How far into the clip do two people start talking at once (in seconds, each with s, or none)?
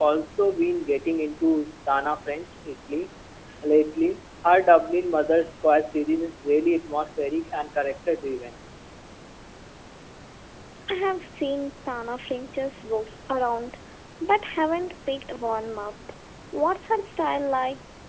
none